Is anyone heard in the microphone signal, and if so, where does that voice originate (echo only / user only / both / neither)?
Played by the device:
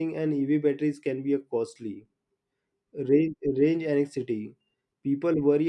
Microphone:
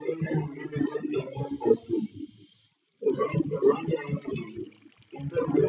echo only